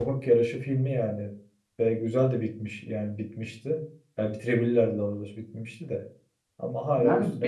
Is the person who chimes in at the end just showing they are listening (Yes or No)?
No